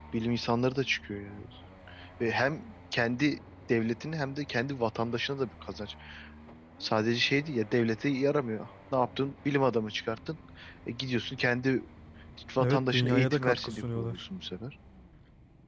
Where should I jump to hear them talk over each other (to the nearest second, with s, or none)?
13 s